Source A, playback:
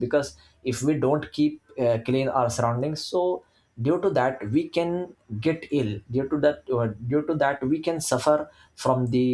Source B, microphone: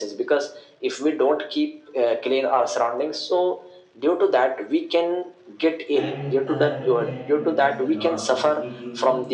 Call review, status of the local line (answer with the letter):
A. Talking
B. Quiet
A